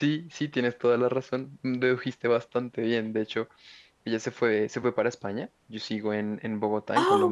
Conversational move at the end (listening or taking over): listening